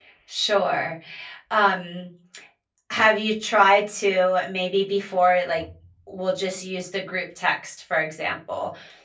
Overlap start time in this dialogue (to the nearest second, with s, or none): none